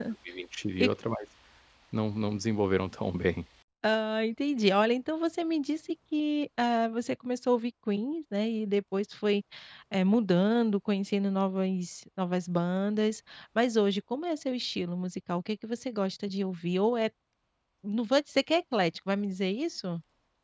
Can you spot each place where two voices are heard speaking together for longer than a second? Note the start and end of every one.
none

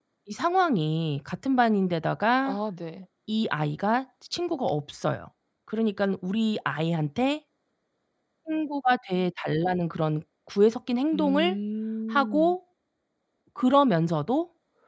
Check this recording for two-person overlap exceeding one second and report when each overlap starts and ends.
none

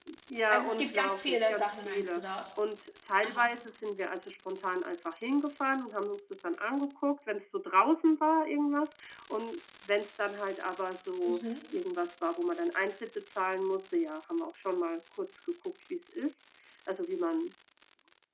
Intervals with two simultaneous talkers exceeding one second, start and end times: 0.5-2.4

